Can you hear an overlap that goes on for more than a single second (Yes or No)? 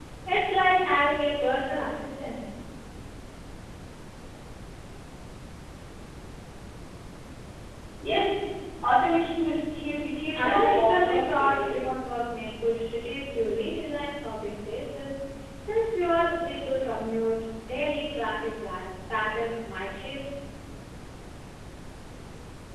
Yes